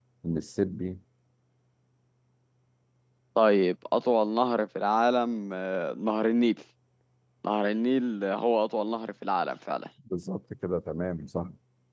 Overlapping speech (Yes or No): No